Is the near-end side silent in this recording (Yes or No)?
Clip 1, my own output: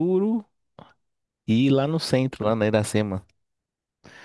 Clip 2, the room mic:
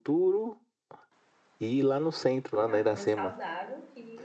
No